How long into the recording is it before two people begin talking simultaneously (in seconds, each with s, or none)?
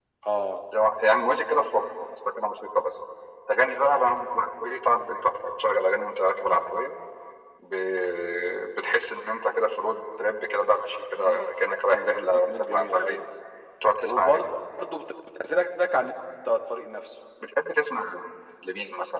11.9 s